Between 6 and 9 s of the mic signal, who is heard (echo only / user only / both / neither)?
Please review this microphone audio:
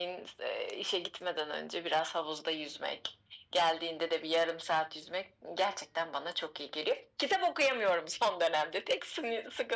echo only